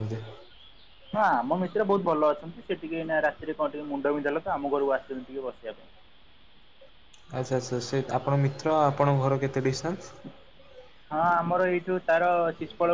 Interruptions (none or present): none